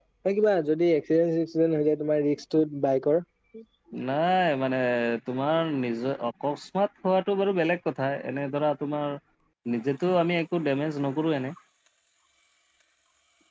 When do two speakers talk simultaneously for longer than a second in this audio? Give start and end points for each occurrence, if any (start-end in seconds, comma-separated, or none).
none